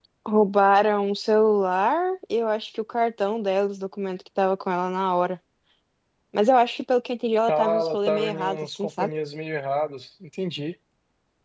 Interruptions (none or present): present